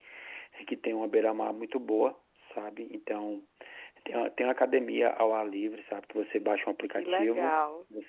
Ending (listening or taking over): listening